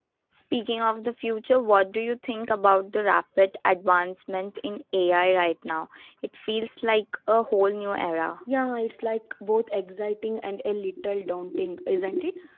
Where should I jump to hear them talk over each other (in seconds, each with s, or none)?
none